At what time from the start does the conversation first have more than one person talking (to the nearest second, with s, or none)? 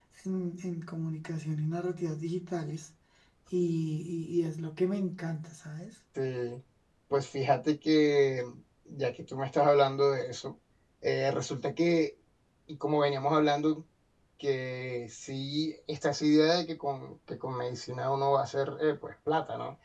none